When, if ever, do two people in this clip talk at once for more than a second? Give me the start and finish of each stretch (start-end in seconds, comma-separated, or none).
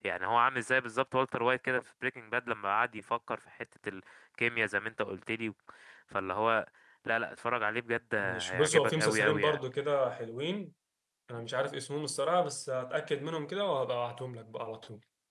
8.2-9.6